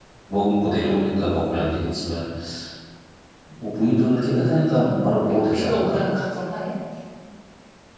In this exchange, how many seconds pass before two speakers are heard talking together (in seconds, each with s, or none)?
4.8 s